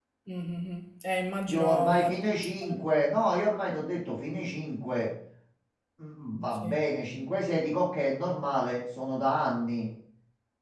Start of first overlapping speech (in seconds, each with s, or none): 1.5 s